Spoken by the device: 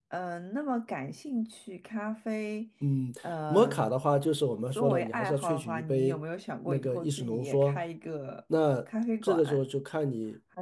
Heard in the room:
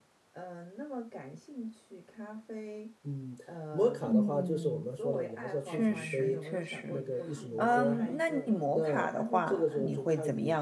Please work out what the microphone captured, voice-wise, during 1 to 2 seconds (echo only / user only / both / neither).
echo only